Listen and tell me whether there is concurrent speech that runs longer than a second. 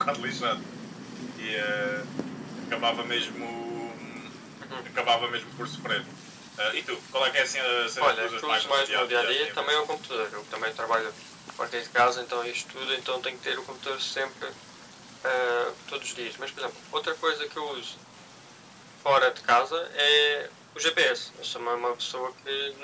Yes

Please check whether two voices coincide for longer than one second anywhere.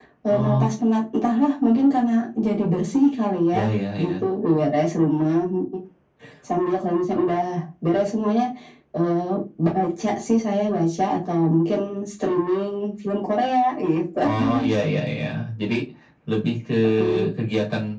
No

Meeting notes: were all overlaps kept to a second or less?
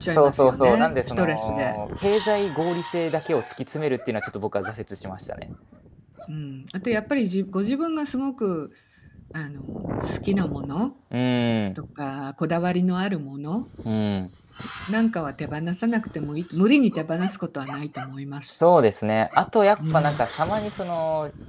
No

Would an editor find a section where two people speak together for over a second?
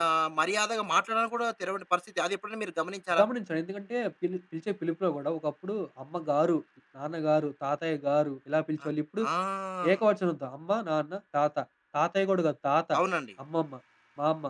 No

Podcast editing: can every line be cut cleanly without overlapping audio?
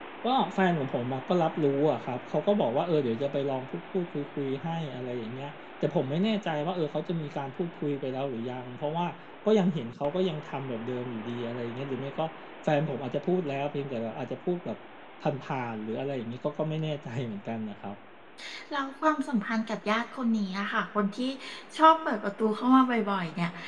Yes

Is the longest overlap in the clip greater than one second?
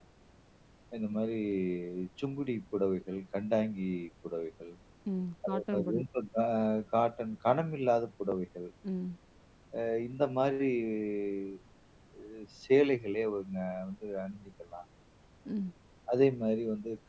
No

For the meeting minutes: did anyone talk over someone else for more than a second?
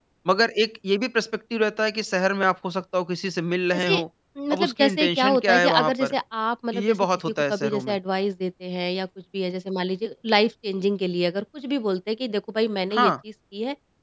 Yes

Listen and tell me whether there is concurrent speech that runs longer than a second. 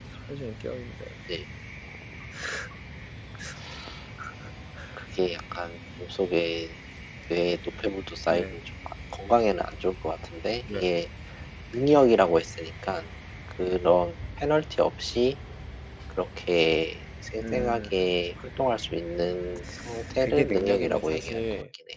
Yes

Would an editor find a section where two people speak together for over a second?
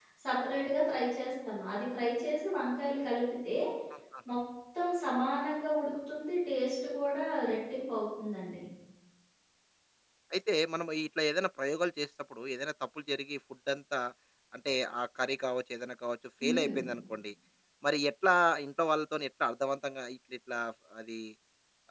No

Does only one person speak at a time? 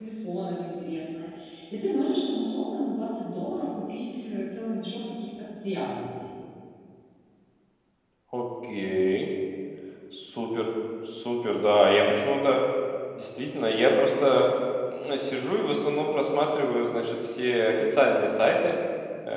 Yes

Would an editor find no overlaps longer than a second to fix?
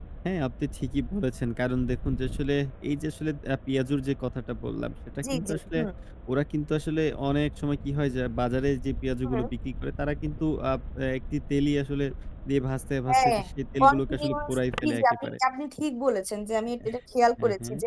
No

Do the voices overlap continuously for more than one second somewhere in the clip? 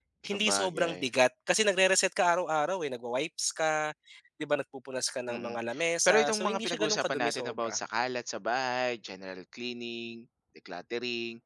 Yes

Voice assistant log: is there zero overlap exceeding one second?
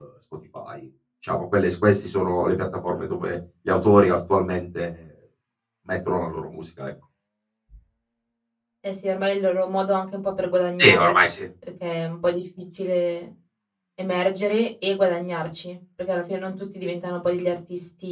Yes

